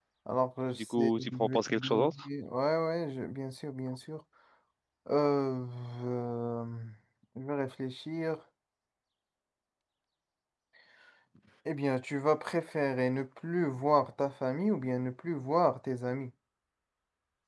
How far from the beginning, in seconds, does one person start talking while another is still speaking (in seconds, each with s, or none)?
0.8 s